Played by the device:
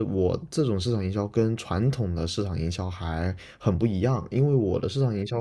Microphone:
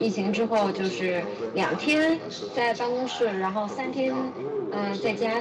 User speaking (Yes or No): Yes